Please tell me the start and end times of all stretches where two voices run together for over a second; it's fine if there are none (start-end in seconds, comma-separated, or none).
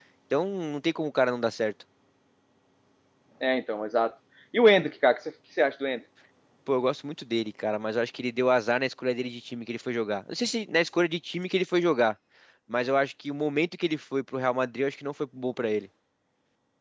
none